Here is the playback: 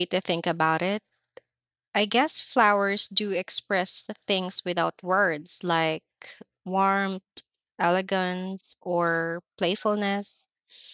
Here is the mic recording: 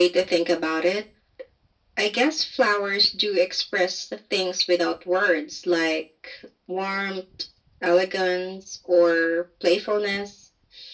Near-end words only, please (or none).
none